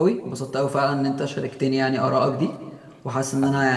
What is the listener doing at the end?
listening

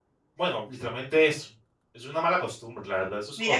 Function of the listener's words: taking over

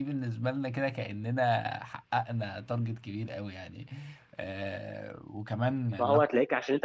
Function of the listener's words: taking over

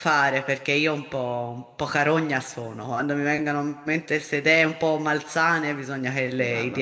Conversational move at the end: taking over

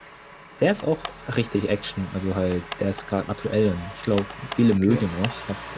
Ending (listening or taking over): listening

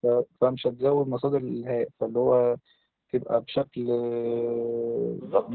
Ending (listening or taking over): taking over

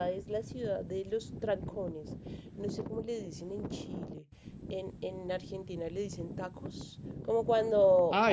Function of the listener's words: listening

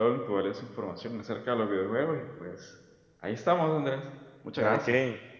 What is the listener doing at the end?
taking over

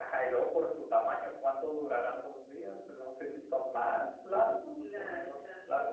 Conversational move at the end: listening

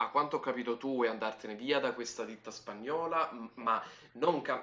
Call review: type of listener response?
listening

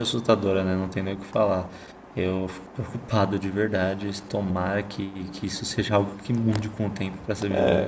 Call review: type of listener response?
taking over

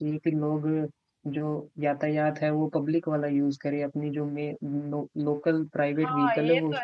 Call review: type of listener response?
taking over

